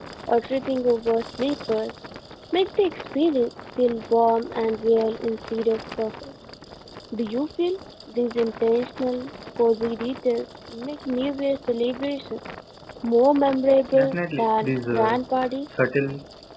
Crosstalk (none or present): present